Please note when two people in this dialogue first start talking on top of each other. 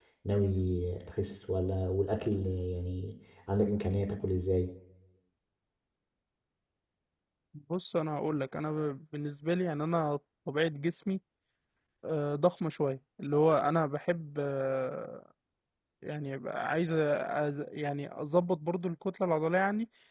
none

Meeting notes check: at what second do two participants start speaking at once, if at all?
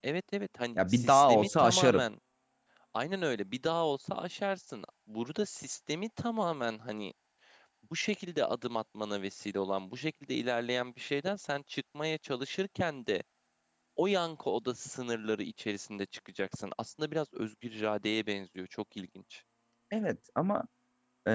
0.8 s

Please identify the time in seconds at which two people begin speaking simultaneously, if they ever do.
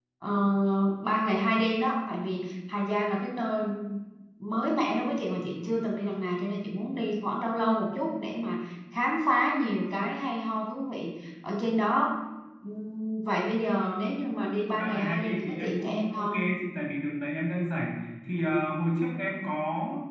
14.8 s

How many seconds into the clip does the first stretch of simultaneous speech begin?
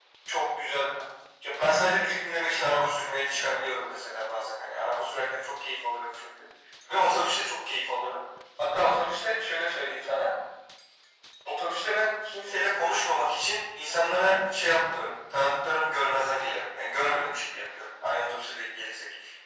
none

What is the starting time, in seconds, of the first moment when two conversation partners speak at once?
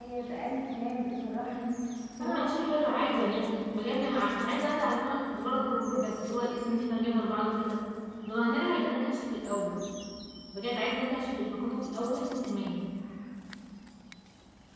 2.2 s

